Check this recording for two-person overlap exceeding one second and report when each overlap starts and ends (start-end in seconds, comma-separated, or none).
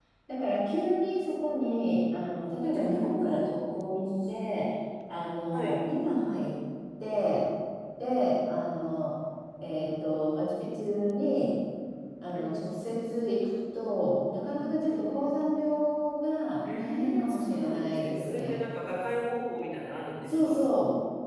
16.6-18.6